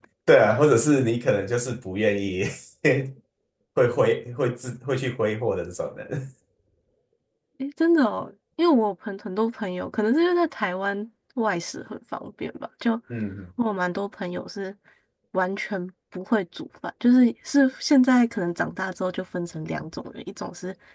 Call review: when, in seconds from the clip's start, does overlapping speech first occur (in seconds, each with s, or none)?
none